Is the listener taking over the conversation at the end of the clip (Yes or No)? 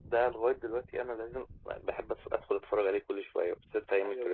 Yes